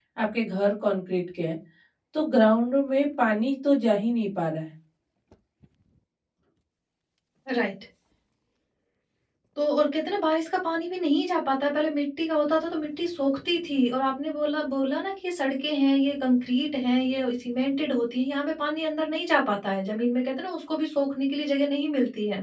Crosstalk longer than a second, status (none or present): none